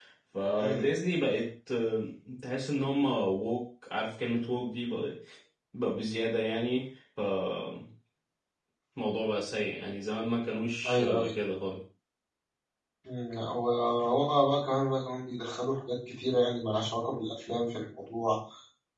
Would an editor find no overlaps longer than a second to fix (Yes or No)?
Yes